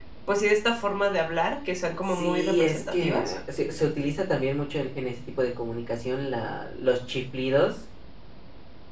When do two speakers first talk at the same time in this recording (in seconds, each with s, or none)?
2.1 s